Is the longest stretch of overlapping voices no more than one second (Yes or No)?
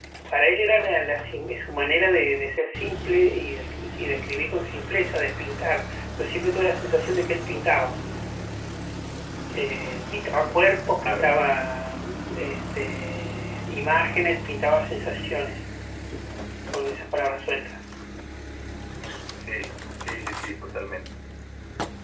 Yes